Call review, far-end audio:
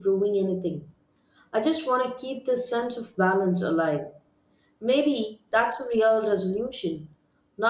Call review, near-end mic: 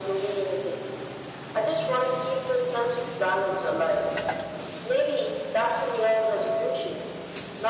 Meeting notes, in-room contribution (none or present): none